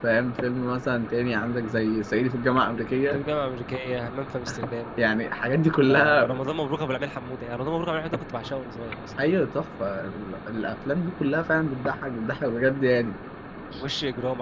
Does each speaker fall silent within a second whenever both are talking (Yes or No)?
Yes